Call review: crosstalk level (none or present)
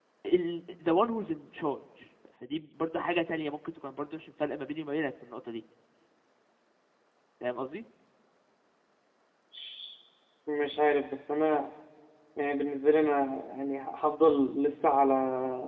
none